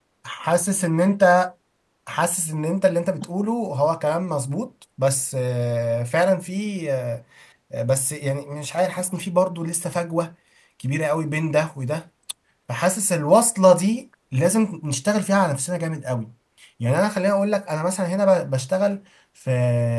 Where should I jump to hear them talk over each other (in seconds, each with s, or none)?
none